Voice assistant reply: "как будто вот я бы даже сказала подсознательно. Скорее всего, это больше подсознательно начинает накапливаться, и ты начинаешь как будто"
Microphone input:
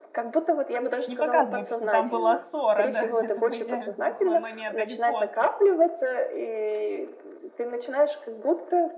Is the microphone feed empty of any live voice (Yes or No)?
No